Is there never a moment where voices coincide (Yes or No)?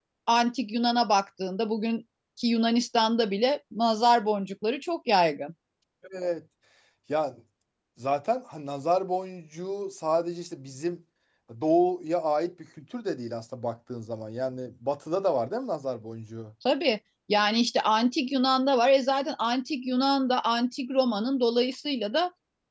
Yes